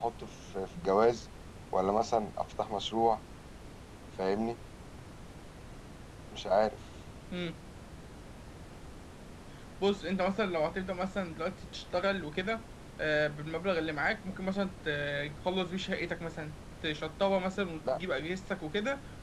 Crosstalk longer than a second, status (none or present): none